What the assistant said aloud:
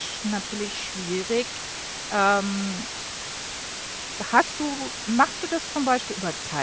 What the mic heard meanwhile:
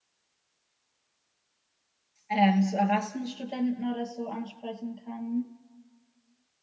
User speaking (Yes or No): Yes